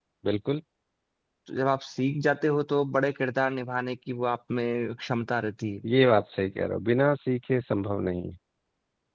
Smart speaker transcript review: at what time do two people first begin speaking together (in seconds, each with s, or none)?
none